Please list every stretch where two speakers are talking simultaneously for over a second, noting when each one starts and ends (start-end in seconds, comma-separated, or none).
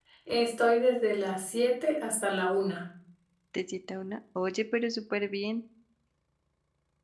none